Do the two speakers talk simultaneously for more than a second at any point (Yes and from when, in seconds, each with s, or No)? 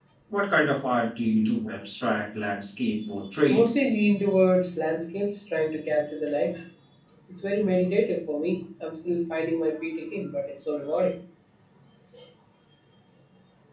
No